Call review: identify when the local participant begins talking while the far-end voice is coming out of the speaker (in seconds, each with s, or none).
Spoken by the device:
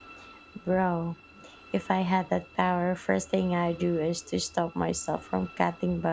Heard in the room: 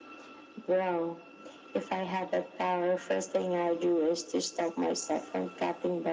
none